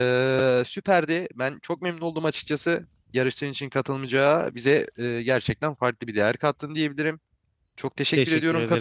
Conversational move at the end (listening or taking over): listening